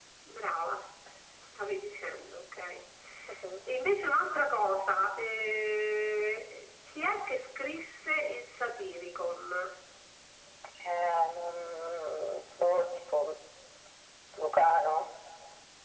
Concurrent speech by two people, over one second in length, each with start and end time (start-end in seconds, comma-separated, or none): none